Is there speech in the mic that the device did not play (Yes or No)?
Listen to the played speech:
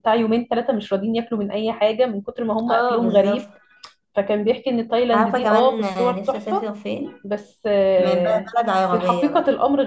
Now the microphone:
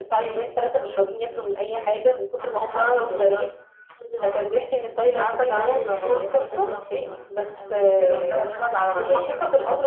Yes